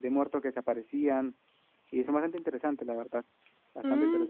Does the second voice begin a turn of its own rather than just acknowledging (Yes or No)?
Yes